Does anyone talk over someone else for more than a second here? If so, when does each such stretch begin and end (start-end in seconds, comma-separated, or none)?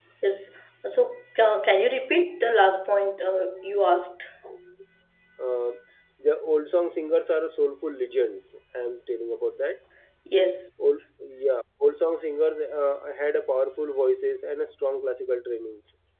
none